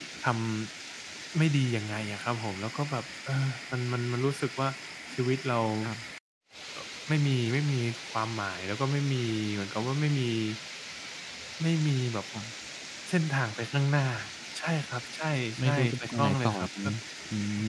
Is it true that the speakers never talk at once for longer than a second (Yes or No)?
No